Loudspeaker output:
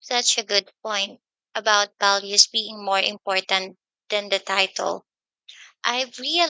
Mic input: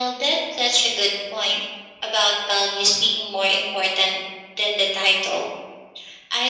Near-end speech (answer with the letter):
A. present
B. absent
B